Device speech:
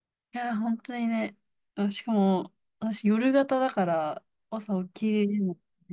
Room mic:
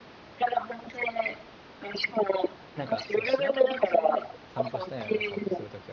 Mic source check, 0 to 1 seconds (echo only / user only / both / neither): echo only